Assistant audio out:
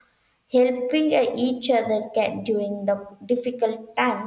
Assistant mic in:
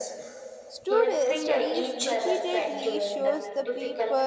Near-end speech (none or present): present